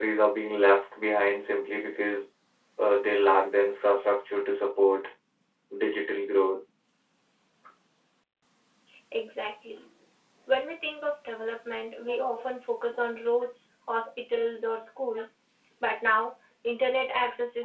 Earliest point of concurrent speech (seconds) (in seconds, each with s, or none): none